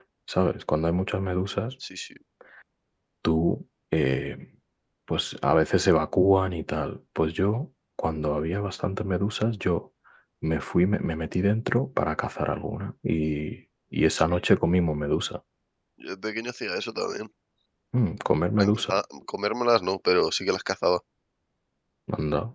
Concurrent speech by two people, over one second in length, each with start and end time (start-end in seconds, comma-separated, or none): none